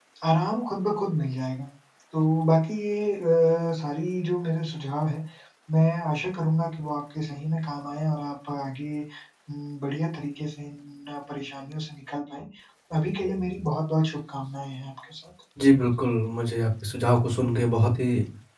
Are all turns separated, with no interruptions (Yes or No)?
Yes